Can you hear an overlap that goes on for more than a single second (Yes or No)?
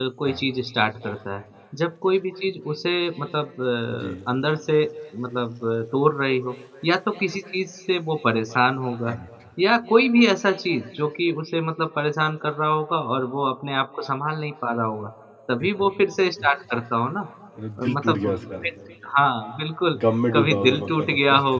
Yes